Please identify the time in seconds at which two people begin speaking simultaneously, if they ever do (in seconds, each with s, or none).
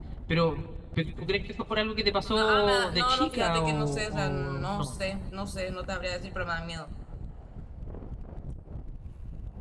2.3 s